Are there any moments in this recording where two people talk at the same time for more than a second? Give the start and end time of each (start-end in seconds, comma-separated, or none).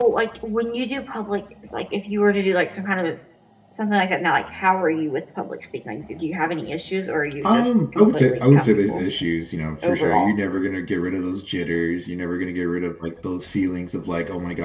7.4-9.0